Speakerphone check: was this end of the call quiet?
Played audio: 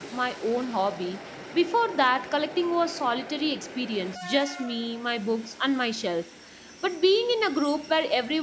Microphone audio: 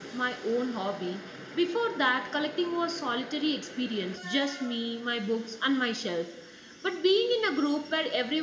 Yes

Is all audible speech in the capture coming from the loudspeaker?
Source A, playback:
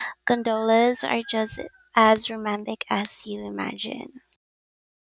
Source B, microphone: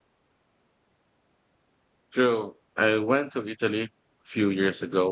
No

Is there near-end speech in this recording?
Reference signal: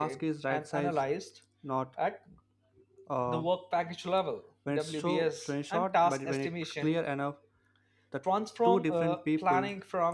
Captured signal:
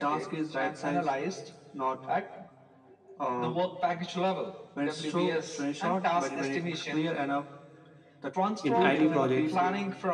Yes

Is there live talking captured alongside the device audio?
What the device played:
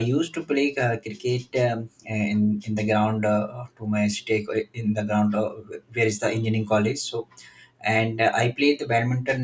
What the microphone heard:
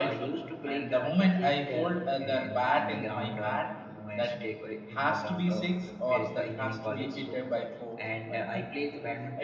Yes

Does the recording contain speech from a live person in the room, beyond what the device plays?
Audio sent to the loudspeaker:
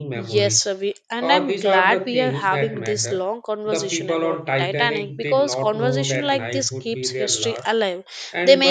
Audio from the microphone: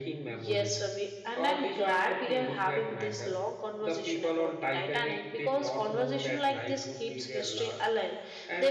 No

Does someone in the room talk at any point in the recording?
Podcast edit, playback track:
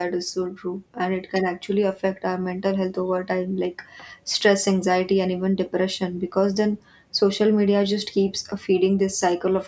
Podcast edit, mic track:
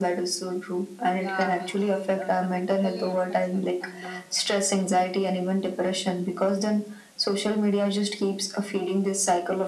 Yes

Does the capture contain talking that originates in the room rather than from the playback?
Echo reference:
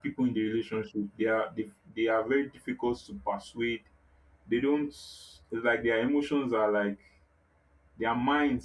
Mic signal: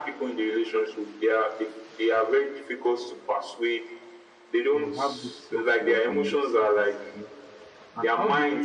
Yes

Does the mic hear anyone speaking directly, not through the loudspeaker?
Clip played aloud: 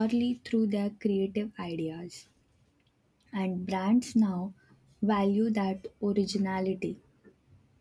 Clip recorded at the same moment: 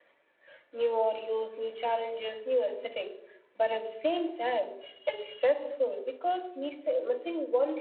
Yes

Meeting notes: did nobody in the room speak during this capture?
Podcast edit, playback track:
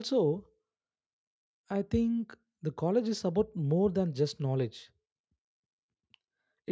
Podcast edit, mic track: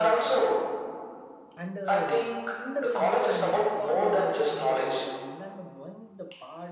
No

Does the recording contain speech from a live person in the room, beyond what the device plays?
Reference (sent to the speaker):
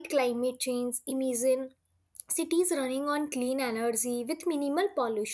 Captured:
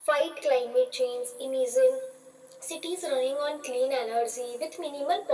No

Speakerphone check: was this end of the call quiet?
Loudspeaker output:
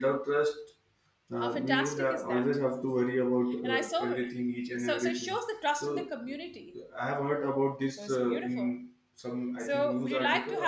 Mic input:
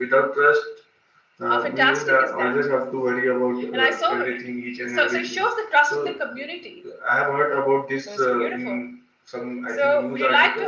Yes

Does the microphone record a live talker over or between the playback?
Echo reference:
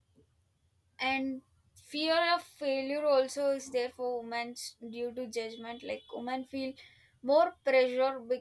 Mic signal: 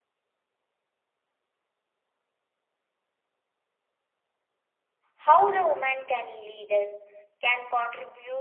Yes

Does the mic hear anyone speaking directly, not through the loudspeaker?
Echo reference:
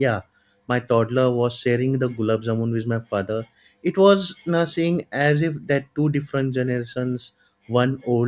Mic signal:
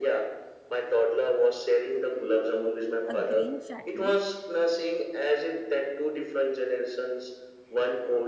Yes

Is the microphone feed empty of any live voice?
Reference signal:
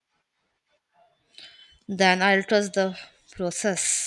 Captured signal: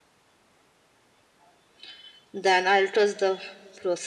Yes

